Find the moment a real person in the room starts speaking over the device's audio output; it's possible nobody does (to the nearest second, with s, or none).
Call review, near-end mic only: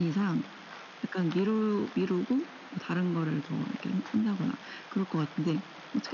none